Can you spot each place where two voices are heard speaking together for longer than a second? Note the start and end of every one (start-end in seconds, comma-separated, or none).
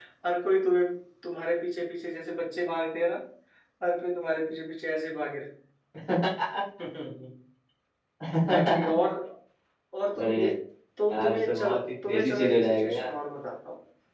11.1-13.1